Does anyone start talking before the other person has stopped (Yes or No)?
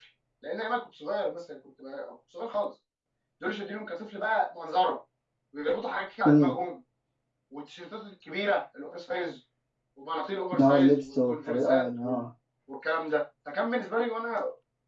Yes